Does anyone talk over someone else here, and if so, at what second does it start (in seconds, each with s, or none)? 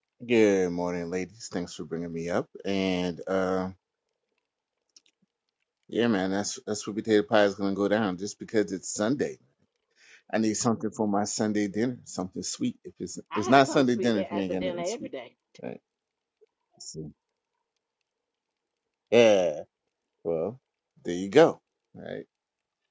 13.3 s